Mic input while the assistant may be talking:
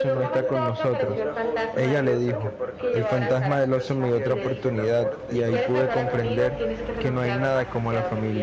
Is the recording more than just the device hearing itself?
Yes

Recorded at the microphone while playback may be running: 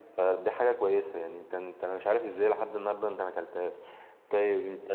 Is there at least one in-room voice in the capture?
No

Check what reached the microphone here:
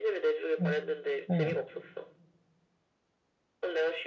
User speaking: Yes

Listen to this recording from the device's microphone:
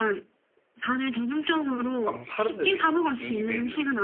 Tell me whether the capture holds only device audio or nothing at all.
No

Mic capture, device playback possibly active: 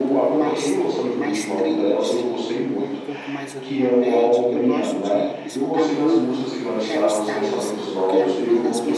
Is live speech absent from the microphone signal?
No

